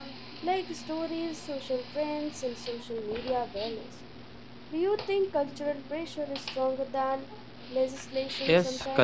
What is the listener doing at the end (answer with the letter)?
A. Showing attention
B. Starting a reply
B